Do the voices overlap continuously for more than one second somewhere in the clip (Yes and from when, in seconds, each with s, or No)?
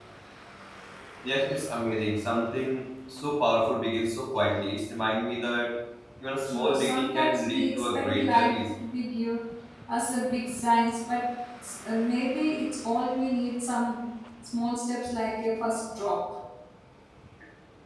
Yes, from 6.5 s